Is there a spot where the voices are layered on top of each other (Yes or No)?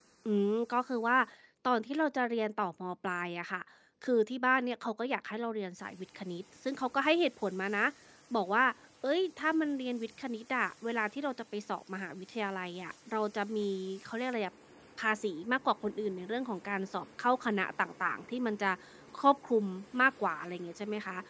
No